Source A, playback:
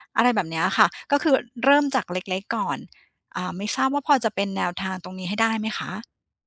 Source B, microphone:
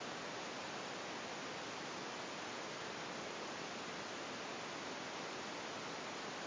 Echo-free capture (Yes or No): Yes